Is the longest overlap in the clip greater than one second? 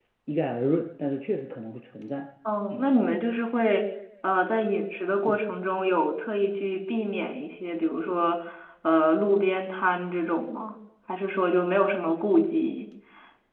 No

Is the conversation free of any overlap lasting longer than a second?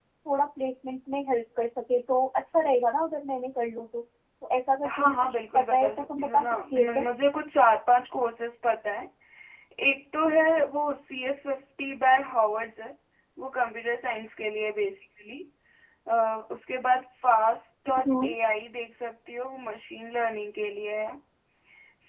No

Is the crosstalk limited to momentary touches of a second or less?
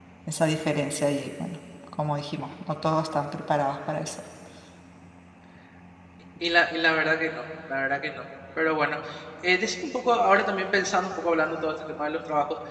Yes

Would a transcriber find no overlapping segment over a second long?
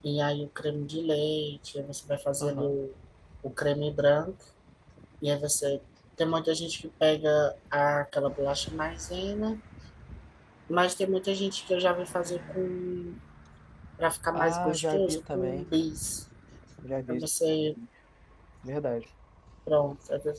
No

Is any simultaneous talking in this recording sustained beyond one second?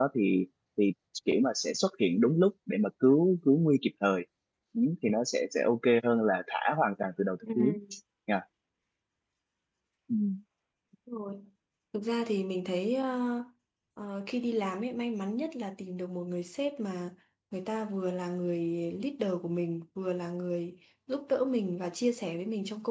No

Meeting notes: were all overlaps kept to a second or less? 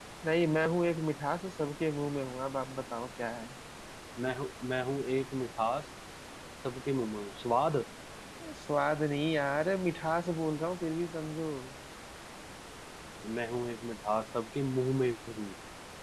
Yes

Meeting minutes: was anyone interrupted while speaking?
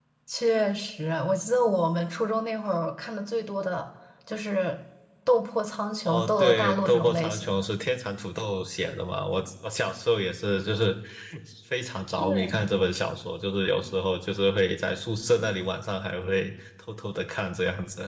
Yes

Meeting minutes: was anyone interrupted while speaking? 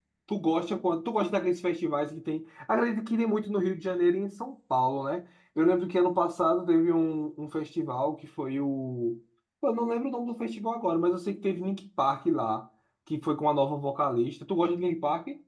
No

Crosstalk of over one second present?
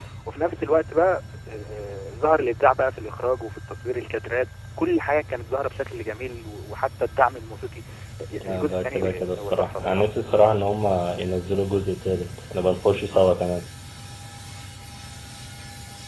Yes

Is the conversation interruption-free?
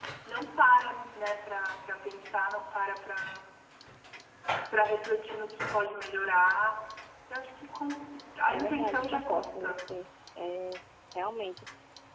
No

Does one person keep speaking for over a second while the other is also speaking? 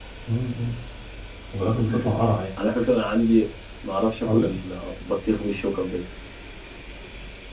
No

